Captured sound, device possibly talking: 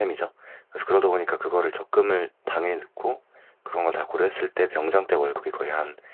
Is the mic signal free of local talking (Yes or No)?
No